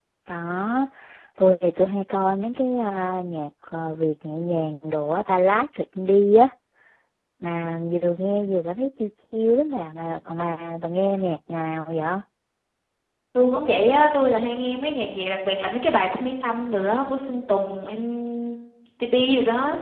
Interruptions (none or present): none